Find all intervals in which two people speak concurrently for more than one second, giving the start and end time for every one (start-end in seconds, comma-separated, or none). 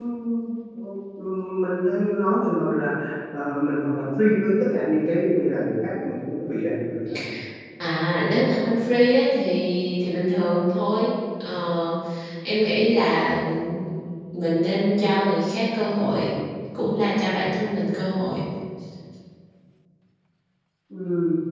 none